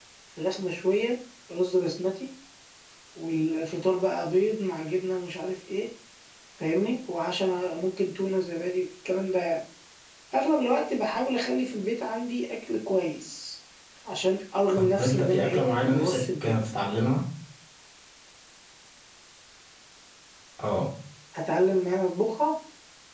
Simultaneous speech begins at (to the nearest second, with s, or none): 15 s